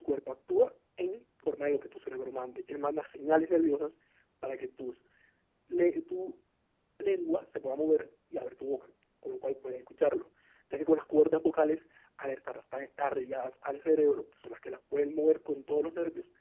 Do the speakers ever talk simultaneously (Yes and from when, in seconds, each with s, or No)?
No